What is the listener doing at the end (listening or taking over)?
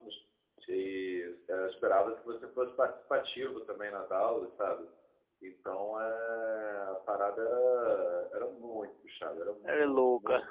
listening